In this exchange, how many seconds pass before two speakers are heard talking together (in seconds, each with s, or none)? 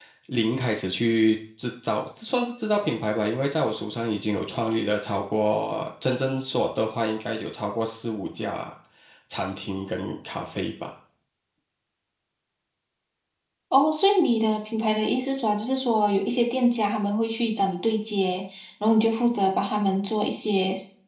none